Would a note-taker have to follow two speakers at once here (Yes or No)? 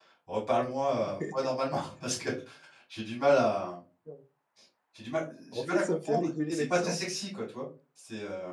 Yes